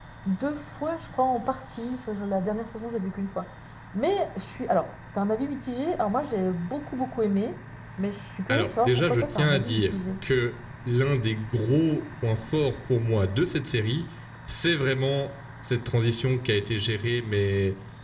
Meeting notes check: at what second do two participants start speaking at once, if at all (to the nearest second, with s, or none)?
8 s